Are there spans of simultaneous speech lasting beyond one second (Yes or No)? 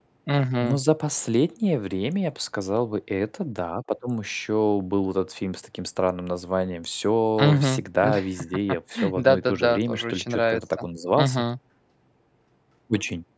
Yes